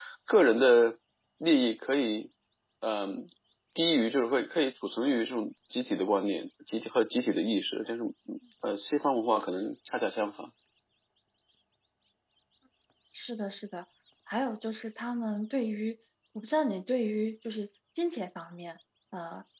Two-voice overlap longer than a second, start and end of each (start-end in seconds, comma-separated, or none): none